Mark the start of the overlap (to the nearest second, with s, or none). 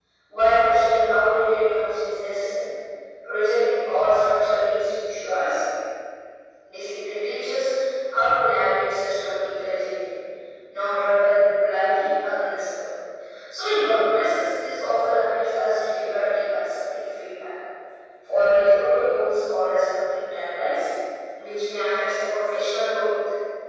none